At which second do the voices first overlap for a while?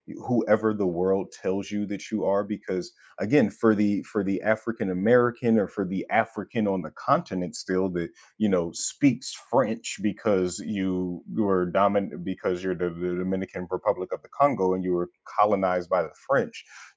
none

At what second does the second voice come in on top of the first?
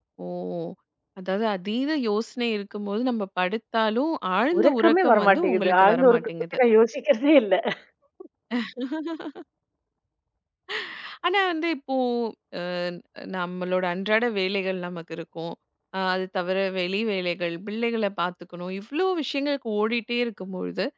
5 s

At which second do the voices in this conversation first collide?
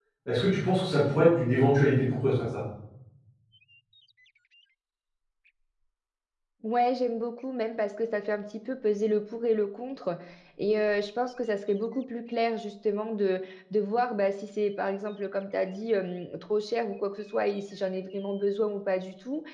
none

